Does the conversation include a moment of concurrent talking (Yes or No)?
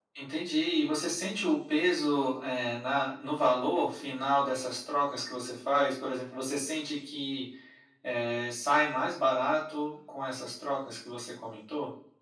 No